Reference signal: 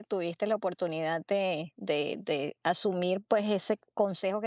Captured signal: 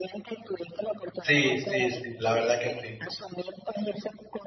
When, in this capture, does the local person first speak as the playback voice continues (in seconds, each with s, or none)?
1.2 s